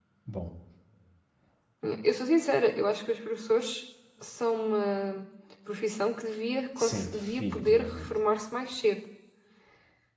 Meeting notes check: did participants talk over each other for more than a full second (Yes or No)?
Yes